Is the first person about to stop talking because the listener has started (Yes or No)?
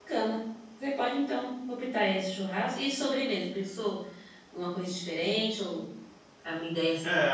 Yes